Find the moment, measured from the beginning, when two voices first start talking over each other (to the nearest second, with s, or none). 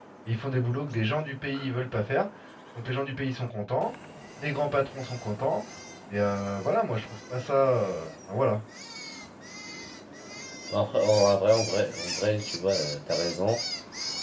none